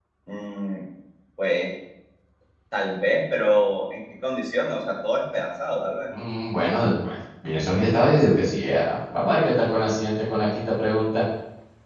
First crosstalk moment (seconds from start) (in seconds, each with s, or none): none